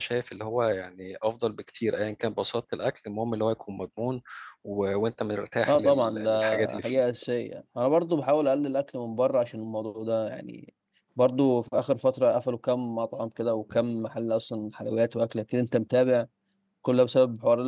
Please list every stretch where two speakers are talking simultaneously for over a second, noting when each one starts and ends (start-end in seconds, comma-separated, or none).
5.7-7.0